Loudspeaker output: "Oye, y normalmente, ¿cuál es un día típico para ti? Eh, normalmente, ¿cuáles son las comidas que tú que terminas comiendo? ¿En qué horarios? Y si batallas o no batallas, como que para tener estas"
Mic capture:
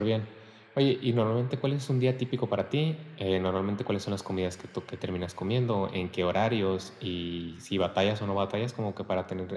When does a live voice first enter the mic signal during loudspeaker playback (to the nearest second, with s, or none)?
none